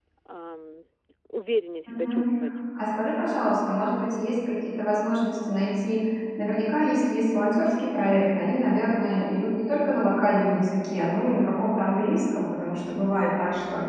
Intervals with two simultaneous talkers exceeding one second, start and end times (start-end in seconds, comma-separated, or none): none